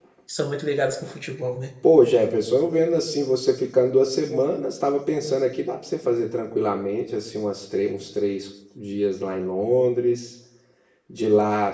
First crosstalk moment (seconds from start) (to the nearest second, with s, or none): none